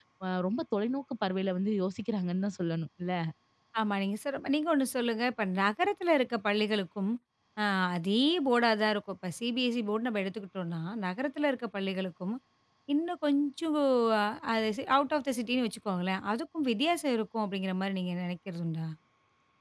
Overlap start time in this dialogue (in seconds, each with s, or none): none